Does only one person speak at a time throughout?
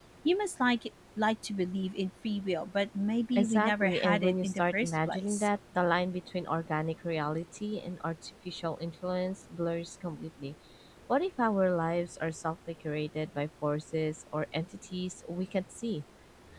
No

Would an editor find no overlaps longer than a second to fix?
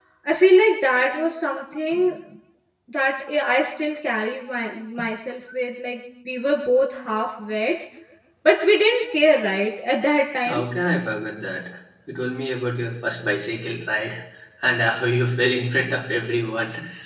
Yes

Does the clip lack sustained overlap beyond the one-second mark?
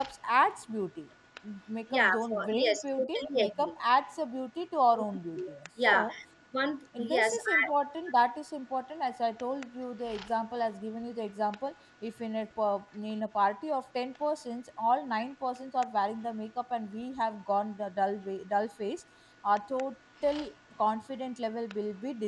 No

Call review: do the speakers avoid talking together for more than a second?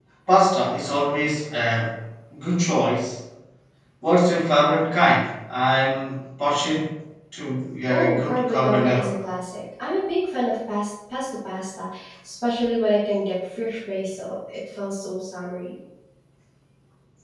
No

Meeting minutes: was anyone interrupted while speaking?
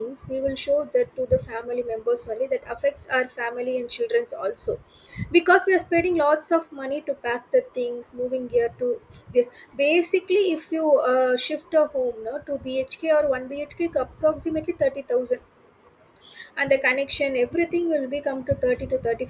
No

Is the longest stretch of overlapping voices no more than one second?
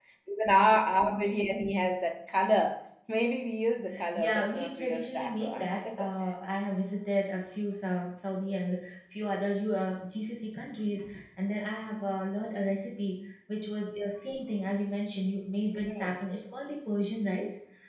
No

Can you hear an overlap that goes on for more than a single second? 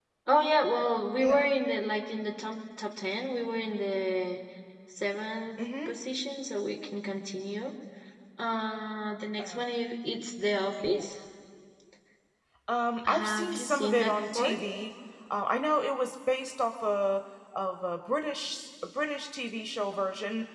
Yes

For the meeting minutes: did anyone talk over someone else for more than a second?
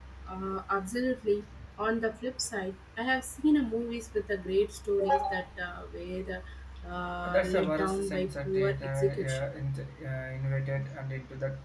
Yes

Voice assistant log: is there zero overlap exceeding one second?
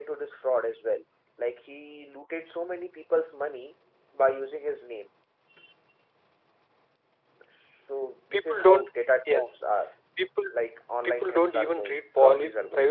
No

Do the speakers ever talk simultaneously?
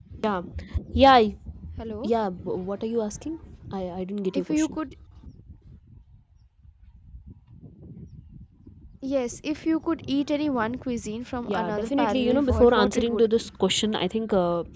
Yes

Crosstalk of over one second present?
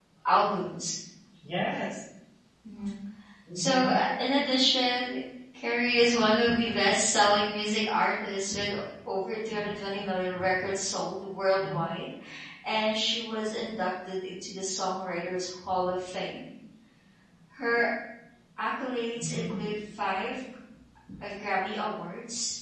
No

